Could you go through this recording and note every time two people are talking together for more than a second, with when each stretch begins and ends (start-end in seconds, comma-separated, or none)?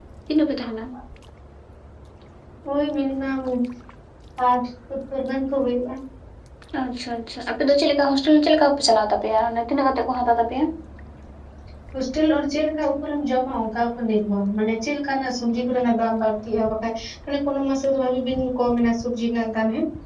none